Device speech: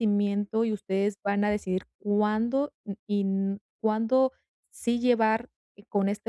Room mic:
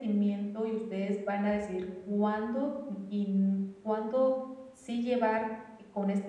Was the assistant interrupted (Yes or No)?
No